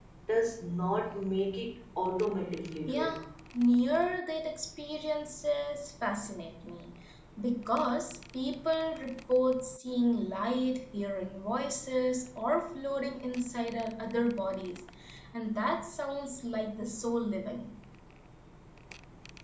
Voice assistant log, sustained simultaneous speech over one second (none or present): none